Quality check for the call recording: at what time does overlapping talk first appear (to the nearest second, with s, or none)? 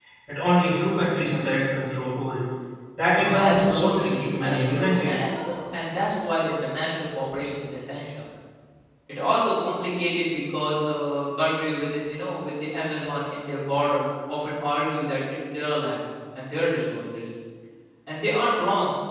3 s